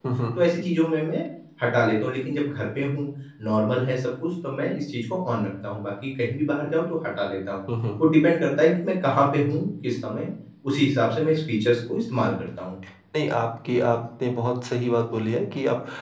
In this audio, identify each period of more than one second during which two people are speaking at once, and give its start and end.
none

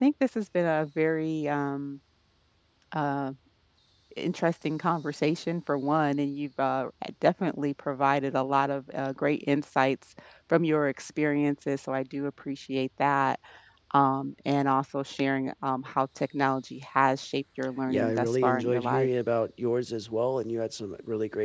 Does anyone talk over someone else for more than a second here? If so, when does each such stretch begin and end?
17.9-19.1

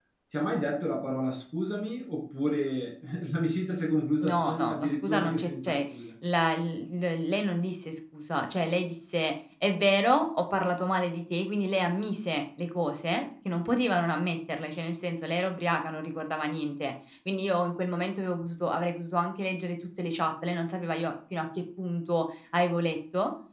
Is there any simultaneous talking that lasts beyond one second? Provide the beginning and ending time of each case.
4.2-5.8

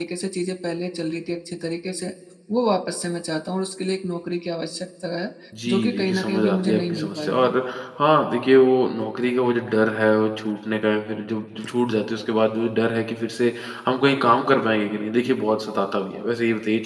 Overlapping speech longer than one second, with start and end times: 5.7-7.5

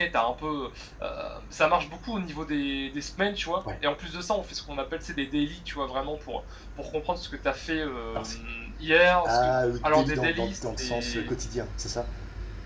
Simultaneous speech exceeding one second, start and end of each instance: 9.8-11.3

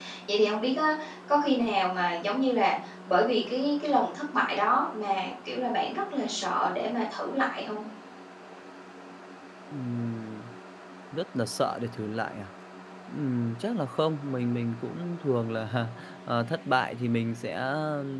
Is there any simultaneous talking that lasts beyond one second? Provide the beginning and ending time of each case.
none

